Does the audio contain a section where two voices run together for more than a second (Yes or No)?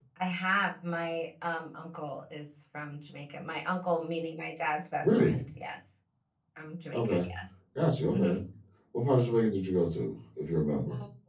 No